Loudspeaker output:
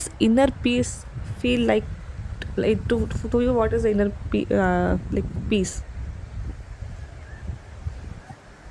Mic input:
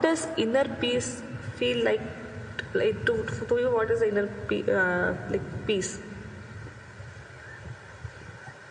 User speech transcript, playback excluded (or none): none